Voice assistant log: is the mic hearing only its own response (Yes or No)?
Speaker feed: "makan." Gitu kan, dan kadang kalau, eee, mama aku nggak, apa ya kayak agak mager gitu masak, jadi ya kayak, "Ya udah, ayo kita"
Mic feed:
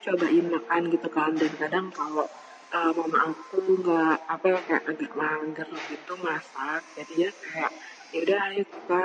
Yes